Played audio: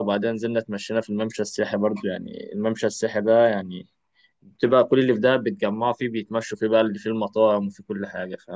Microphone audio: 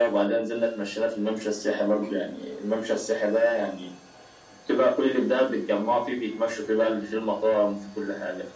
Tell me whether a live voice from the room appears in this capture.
No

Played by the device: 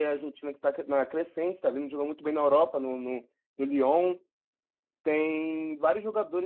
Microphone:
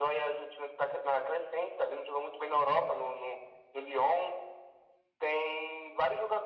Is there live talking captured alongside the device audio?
No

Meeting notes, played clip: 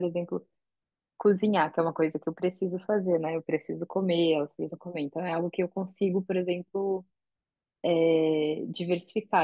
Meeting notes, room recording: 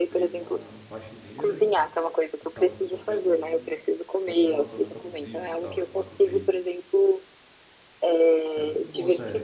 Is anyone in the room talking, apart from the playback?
Yes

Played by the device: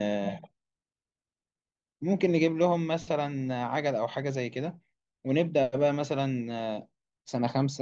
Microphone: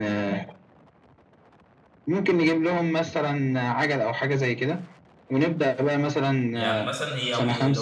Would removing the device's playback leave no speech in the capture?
No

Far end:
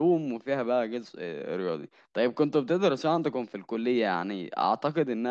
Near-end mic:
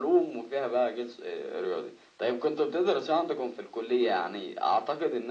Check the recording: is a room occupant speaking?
No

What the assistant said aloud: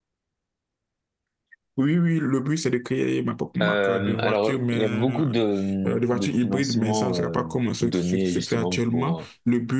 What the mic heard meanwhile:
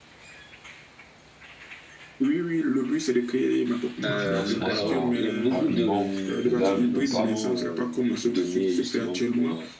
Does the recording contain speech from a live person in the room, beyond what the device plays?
Yes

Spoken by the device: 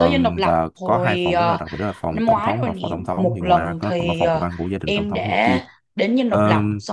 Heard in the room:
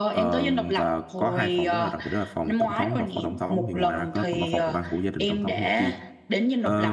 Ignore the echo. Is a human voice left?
No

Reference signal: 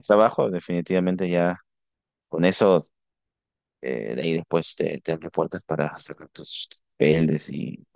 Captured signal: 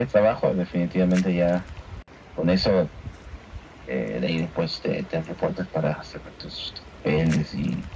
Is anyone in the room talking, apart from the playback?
No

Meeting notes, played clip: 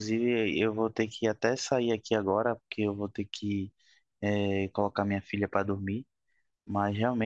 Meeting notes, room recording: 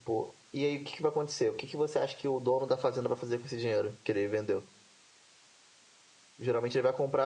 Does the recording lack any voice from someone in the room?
No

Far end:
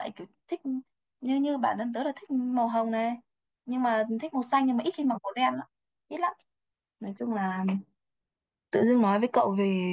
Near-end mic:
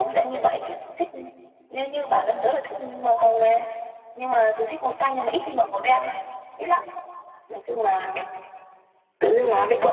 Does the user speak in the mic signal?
No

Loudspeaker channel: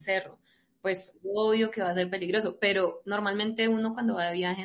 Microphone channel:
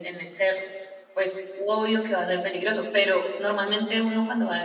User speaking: No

